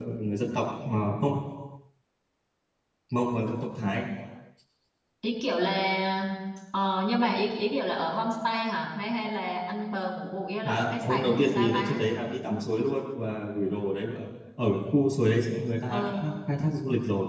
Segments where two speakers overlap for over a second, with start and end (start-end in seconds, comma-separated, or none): 10.6-12.0